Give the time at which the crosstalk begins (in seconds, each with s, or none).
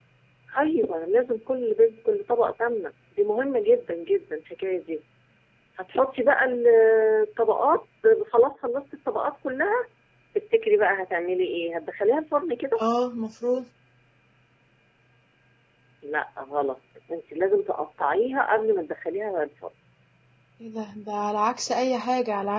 none